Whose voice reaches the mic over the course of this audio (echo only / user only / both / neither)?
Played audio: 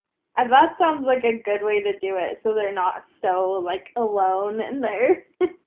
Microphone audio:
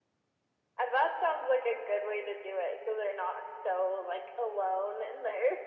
echo only